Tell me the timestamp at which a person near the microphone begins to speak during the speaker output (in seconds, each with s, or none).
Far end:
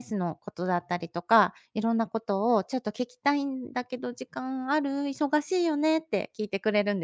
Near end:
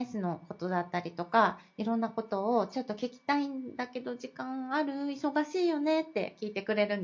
none